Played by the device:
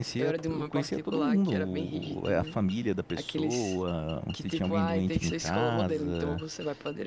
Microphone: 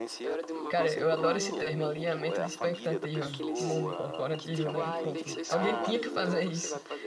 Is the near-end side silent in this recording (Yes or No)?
No